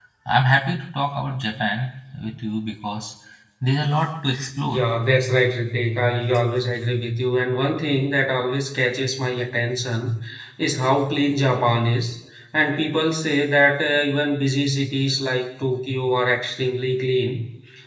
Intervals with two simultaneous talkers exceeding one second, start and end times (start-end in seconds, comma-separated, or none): none